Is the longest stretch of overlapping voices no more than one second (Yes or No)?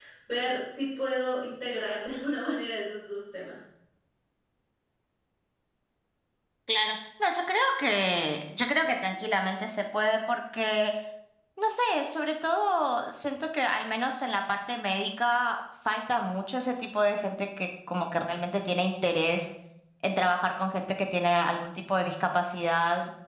Yes